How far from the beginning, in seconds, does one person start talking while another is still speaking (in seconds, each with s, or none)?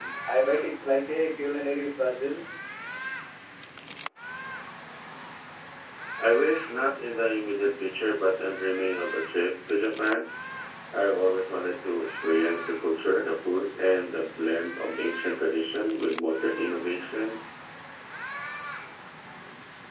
none